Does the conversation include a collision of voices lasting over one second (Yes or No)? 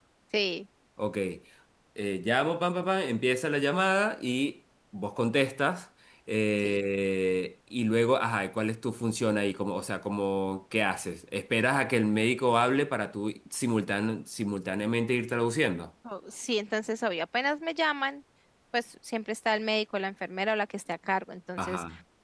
No